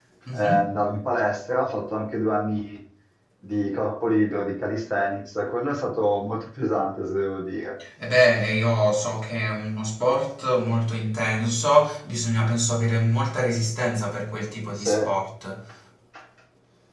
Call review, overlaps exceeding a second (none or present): none